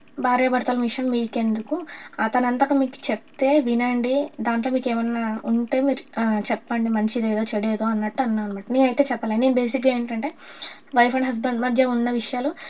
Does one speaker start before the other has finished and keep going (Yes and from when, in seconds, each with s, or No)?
No